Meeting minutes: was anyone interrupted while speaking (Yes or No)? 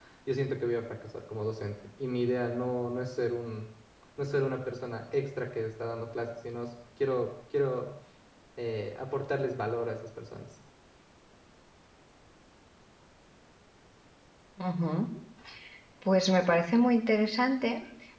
No